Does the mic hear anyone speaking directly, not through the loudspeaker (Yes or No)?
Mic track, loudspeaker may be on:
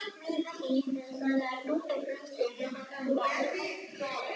Yes